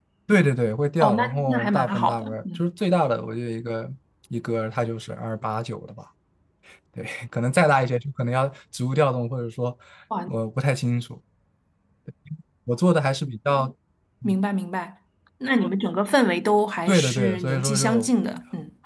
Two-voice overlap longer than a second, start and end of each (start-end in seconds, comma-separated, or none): 1.0-2.6, 16.9-18.1